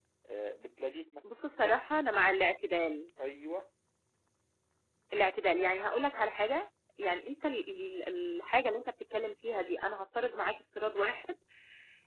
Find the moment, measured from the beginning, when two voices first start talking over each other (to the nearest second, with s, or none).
none